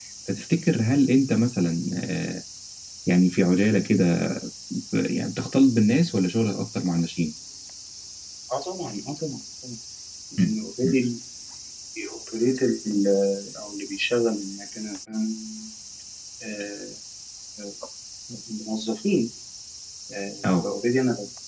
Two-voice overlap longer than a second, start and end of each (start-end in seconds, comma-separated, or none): none